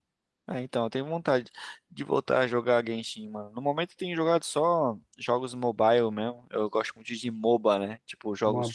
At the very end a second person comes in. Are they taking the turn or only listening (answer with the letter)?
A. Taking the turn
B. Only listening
B